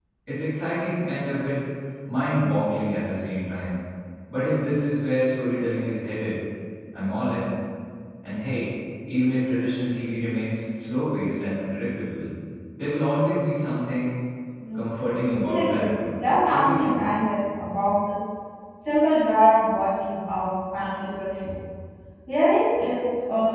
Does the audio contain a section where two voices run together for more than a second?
Yes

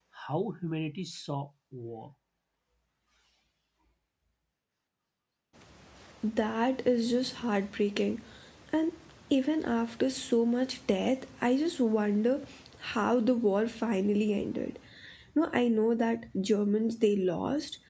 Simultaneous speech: No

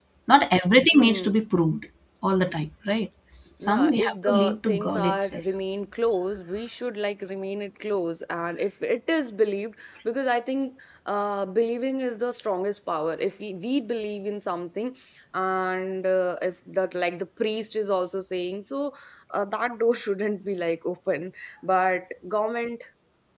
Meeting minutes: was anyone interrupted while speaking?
Yes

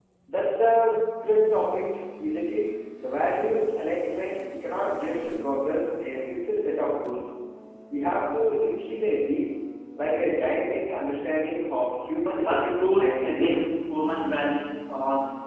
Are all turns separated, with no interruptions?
No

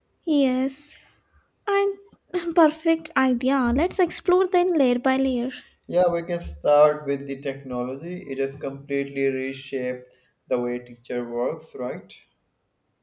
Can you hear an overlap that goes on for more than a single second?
No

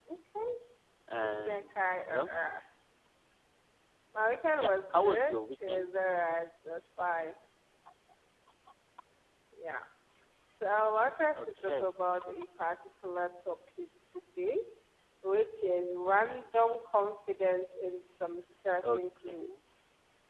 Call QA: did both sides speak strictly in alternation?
No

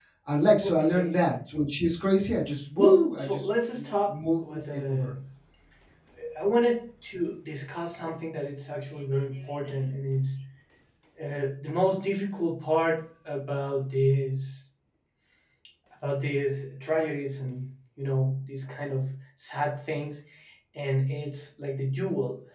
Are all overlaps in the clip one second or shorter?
No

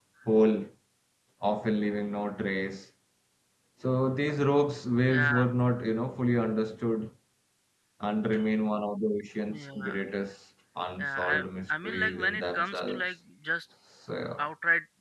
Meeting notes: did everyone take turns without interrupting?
No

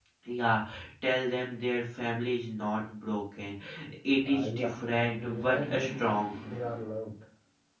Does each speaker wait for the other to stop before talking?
No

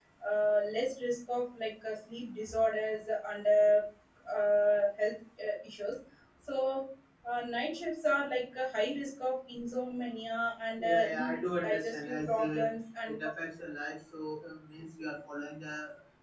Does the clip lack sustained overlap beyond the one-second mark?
No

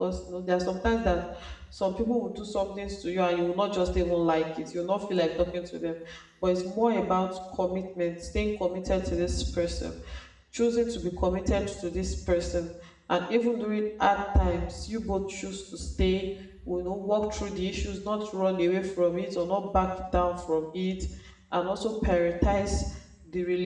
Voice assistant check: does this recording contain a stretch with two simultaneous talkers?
No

